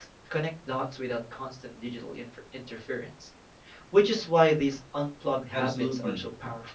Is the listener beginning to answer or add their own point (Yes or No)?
Yes